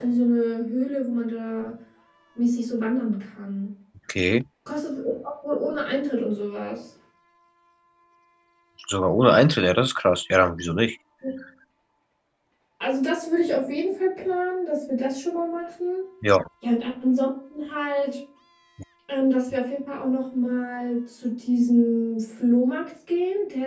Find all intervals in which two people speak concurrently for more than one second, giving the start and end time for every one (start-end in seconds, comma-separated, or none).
none